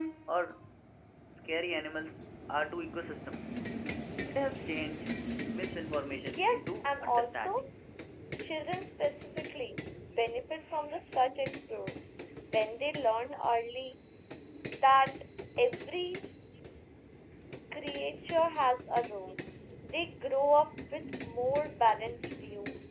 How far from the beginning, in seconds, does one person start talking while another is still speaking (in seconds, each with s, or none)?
6.2 s